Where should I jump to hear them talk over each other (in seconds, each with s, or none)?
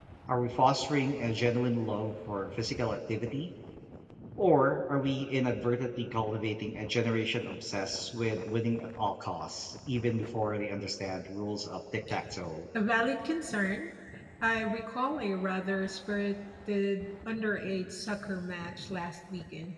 none